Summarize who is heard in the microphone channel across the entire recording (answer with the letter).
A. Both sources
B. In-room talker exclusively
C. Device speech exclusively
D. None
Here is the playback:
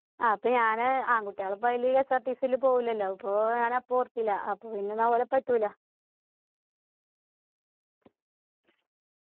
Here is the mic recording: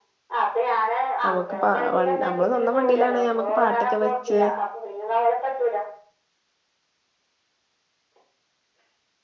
A